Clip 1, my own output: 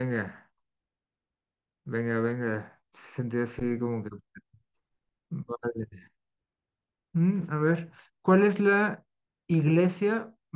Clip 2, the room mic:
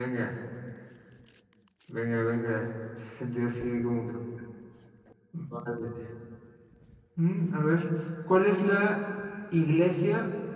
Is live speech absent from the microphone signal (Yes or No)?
Yes